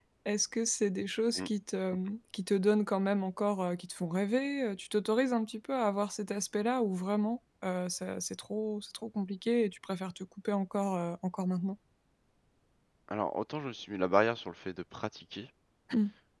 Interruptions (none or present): none